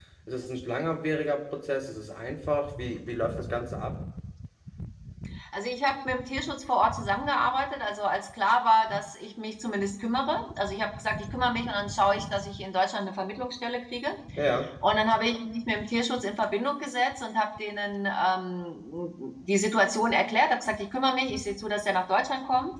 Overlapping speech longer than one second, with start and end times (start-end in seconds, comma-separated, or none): none